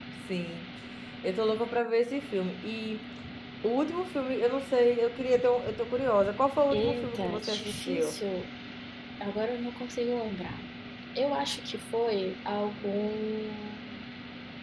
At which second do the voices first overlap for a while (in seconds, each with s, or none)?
6.7 s